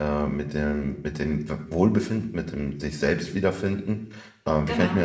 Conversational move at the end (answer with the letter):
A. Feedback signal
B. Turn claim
A